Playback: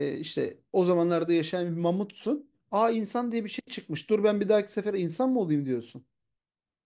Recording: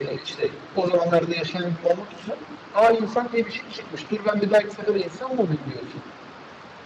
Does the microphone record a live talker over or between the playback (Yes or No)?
No